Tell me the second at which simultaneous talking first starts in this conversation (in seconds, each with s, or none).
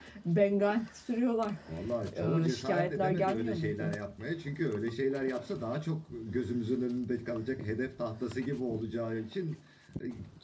2.4 s